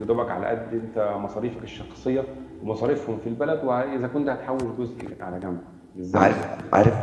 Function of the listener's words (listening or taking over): taking over